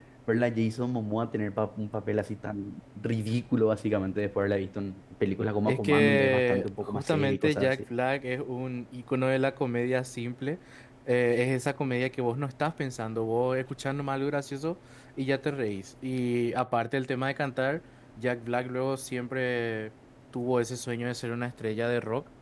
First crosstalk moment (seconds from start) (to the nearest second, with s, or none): 6 s